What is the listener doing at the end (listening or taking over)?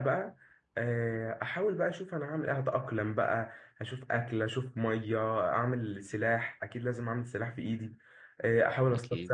listening